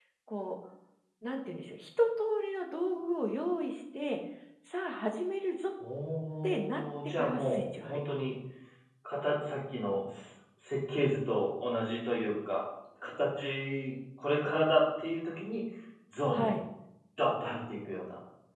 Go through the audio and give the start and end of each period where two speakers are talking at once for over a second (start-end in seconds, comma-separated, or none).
6.4-8.2